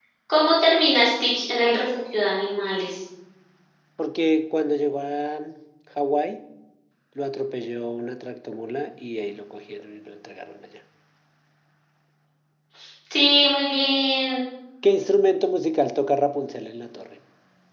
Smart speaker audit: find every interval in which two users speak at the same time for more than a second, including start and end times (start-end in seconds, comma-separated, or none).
none